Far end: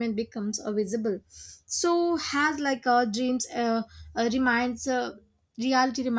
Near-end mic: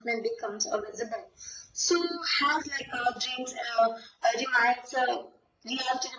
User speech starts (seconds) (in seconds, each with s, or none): none